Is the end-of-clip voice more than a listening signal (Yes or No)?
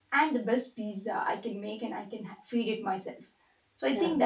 No